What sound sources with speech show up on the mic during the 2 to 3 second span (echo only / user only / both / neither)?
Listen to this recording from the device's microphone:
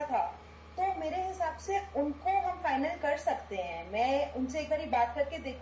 echo only